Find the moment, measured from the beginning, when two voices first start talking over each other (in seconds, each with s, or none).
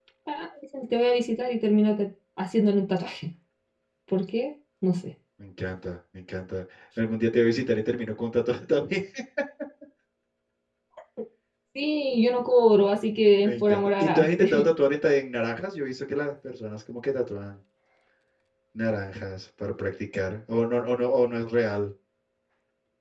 13.4 s